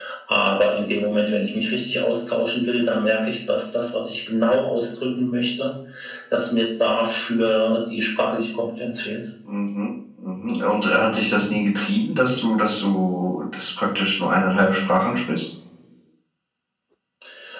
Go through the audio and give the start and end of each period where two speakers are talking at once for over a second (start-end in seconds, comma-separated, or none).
none